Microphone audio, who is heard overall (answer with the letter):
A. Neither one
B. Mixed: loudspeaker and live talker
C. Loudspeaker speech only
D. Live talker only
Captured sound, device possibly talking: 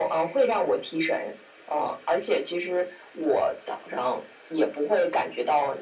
C